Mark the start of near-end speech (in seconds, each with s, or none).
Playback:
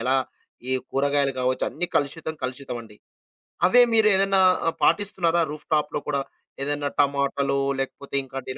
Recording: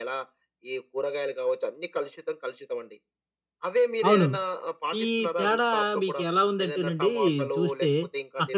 4.1 s